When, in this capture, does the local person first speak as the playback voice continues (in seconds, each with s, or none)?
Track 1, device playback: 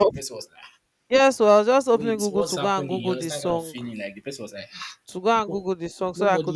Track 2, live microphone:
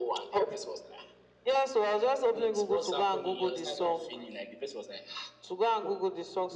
none